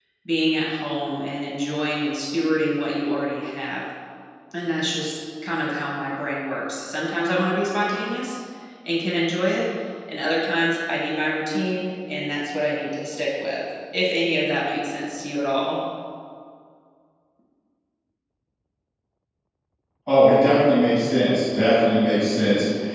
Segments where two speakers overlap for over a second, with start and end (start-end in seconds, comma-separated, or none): none